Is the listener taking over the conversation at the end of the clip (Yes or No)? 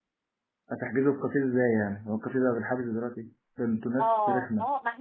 Yes